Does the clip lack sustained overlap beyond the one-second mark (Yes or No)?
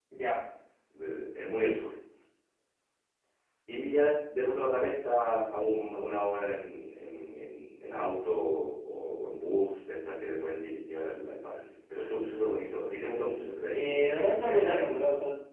No